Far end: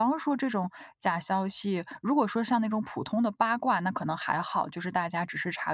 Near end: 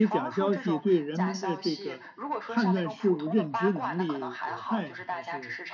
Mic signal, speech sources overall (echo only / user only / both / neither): both